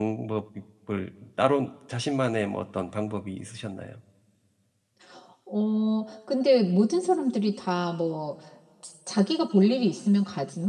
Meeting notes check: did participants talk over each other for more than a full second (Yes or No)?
No